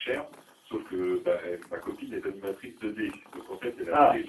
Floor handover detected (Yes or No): No